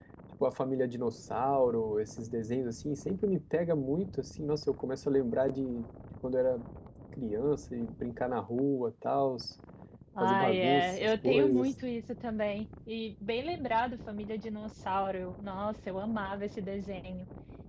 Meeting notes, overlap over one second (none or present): present